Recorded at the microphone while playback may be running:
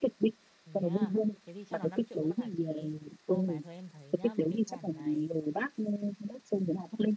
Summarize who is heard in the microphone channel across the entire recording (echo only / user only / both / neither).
both